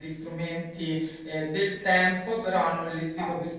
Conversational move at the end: listening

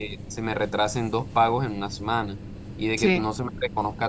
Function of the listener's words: listening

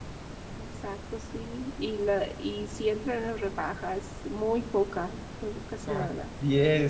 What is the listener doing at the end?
taking over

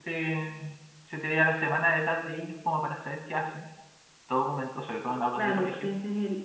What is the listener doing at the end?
taking over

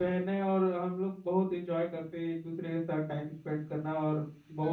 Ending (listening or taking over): taking over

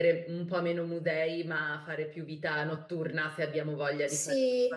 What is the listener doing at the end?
taking over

